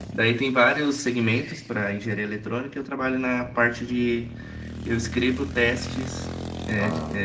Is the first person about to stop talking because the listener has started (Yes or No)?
No